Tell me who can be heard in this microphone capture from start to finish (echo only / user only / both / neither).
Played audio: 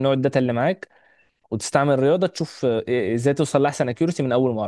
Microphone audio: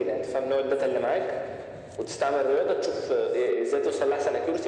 echo only